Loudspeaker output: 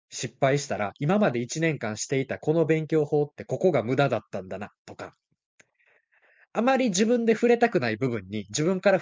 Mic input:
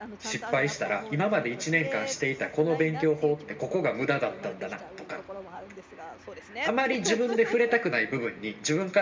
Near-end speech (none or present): present